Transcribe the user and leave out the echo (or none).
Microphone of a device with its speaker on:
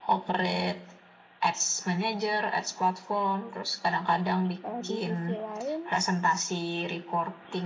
Eh, di sisi lain